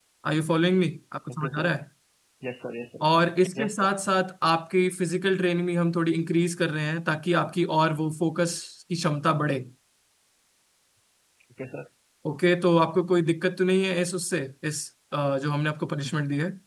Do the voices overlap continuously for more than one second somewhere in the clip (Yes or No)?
No